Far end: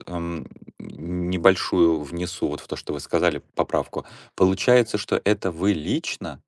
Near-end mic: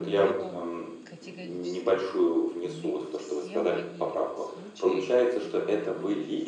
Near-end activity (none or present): present